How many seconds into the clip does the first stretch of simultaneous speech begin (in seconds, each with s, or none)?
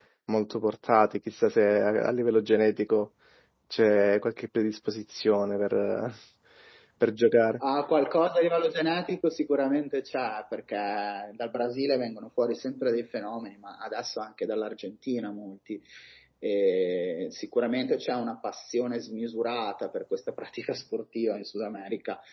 none